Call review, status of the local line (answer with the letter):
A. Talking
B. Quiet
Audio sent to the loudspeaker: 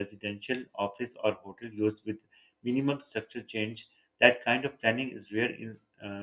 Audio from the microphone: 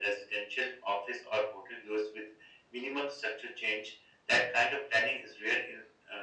B